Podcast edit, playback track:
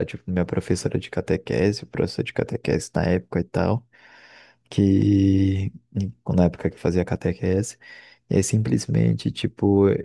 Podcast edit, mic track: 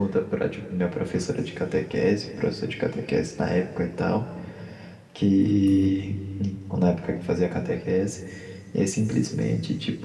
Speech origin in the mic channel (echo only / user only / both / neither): both